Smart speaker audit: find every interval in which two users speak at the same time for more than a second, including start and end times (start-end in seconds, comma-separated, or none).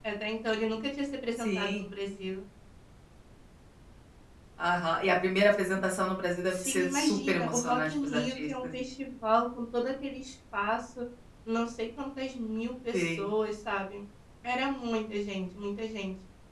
6.5-8.5